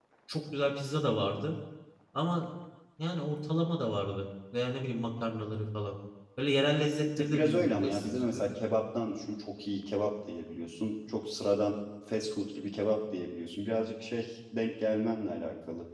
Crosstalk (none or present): present